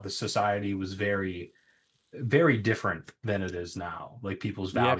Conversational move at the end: taking over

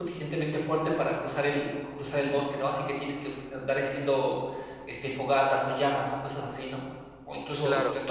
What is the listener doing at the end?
listening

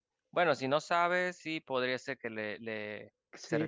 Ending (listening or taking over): taking over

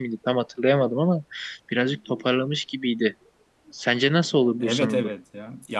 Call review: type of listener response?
taking over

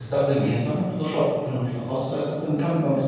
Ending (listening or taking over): taking over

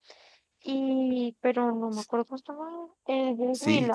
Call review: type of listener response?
taking over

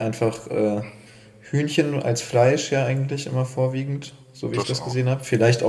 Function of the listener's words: listening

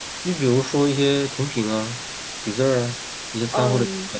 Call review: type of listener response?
taking over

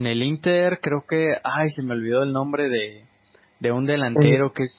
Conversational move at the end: listening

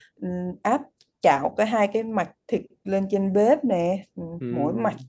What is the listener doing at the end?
listening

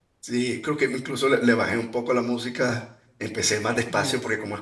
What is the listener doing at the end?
listening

